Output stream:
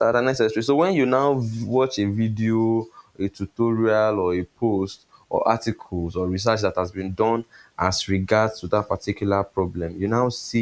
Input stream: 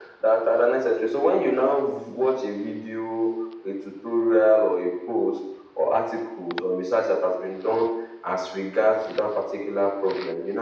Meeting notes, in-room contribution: none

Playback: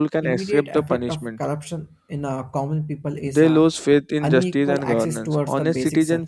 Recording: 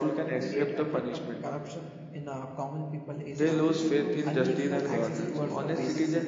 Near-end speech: present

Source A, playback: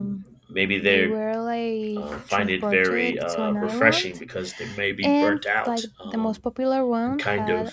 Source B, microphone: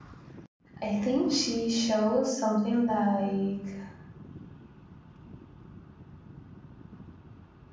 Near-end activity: present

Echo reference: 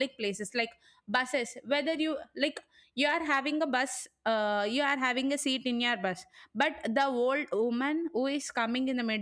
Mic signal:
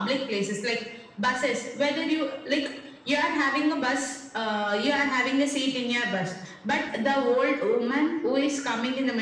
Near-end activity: none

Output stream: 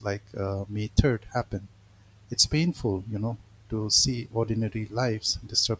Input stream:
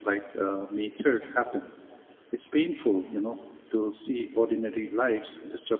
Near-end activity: none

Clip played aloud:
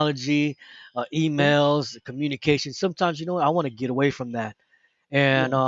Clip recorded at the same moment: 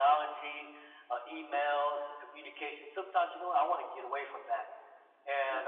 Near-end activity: none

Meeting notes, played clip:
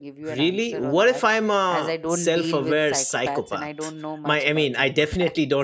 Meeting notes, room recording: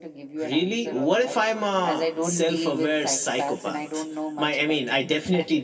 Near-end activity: none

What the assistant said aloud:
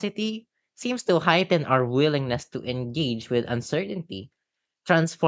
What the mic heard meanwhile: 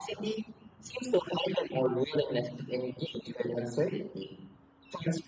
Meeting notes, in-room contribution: none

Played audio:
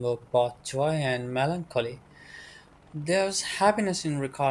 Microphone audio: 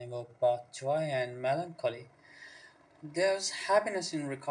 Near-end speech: none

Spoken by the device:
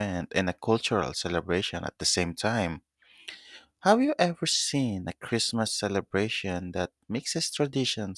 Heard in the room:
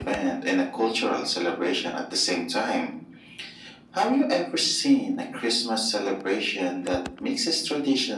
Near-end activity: none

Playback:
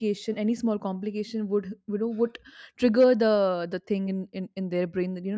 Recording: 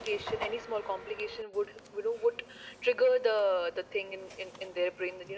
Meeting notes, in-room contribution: none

